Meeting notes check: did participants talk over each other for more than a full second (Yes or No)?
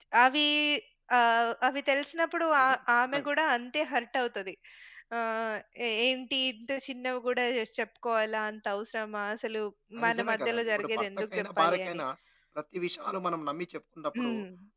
Yes